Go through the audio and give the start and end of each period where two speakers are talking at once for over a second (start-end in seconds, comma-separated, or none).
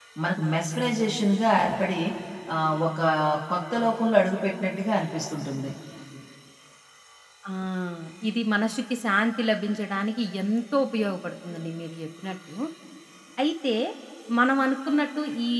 none